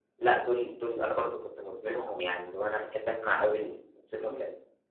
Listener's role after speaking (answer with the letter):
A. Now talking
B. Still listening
B